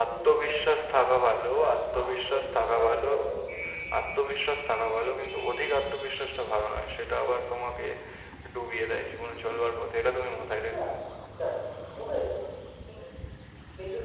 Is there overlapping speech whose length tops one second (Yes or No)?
Yes